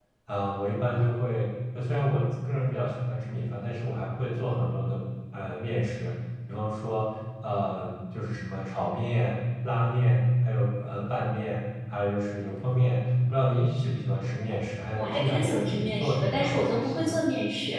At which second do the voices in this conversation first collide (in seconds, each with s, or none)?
14.9 s